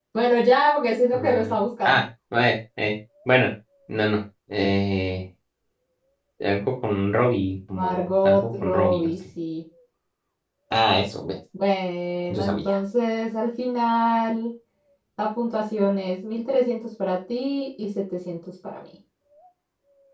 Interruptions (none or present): present